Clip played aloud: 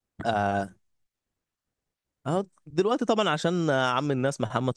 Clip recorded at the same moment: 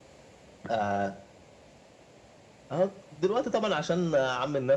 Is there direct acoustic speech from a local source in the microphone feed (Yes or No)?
No